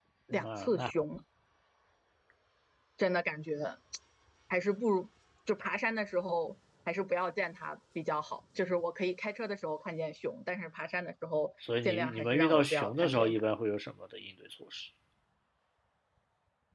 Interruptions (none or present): present